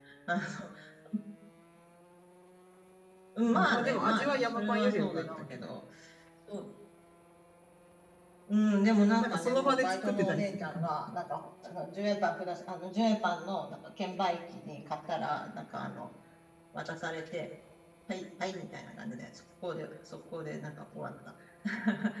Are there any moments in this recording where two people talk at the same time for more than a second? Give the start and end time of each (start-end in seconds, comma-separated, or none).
3.5-5.6, 9.2-10.9